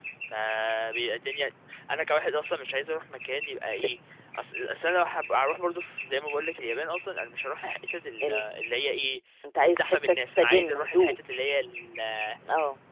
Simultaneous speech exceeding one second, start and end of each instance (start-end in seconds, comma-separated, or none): 9.6-11.2